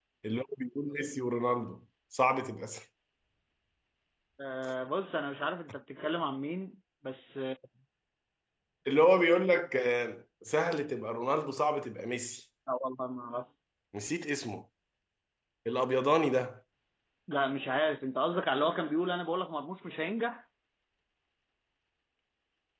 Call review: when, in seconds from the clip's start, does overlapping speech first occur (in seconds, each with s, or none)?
none